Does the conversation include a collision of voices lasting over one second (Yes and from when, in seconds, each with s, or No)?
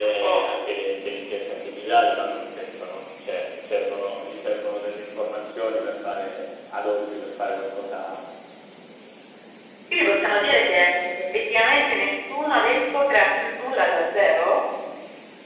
No